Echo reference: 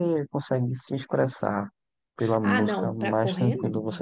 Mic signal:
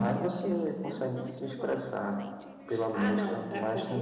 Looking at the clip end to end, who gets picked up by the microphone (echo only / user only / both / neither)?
both